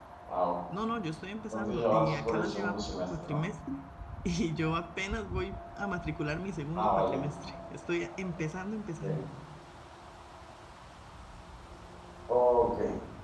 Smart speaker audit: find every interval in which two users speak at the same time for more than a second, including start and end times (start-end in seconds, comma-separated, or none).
1.5-3.4